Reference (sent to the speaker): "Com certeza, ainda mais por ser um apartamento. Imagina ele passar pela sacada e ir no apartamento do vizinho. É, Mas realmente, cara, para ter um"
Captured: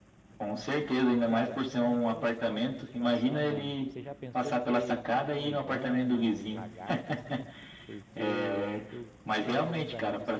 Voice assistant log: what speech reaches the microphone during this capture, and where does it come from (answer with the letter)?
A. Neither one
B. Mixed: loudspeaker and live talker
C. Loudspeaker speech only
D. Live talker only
B